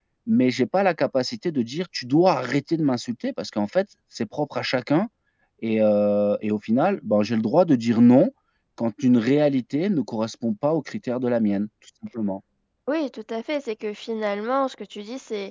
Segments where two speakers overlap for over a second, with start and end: none

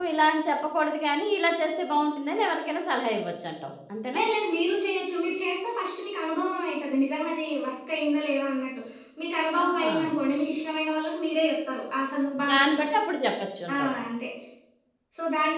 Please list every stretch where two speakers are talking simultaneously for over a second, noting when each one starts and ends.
none

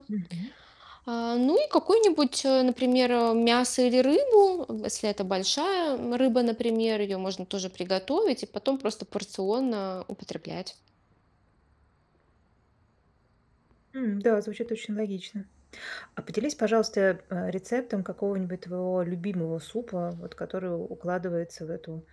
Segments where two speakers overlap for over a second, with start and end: none

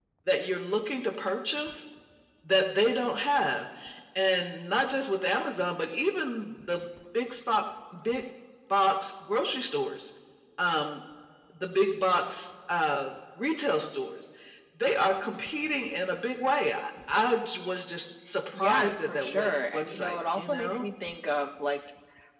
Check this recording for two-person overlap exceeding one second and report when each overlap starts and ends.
18.6-20.9

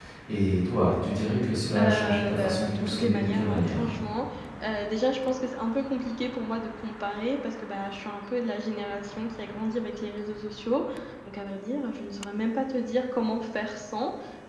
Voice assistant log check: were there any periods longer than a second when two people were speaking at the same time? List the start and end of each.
1.8-3.9

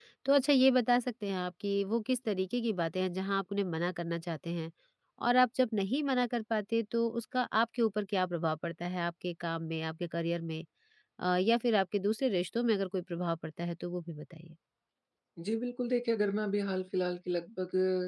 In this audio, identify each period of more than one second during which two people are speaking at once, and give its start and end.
none

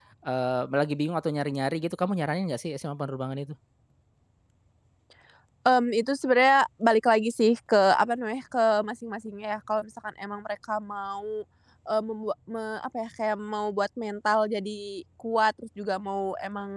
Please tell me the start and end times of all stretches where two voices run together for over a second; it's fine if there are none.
none

